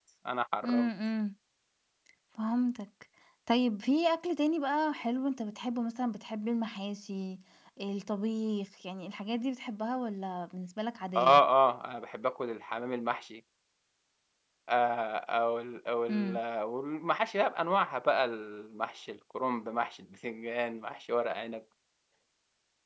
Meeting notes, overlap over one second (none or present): none